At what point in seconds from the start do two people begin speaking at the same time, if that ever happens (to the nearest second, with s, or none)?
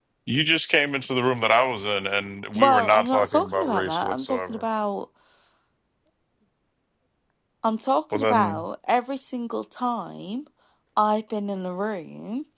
3 s